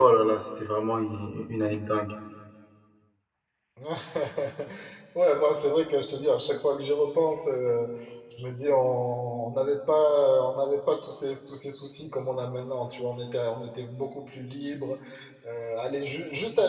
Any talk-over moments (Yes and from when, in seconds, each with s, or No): No